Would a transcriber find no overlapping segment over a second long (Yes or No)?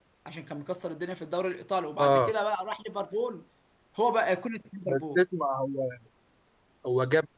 Yes